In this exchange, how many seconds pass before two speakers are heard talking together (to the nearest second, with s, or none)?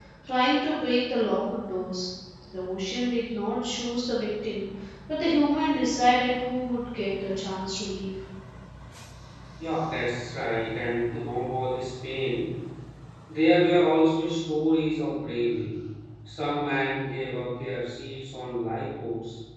none